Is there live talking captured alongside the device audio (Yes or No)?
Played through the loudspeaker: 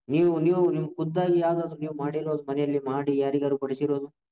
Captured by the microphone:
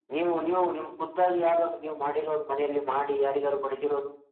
No